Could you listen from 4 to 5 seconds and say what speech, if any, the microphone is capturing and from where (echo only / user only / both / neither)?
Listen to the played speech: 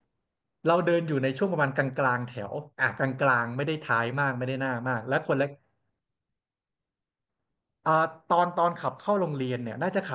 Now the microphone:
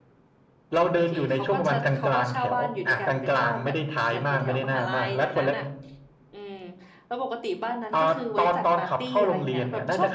both